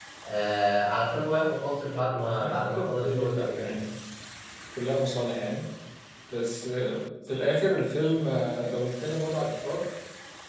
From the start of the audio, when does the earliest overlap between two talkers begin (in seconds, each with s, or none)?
2.4 s